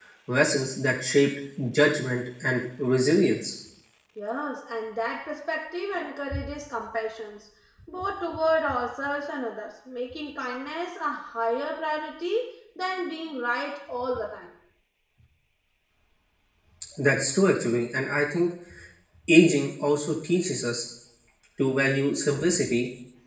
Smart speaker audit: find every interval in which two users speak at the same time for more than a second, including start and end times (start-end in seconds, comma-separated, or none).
none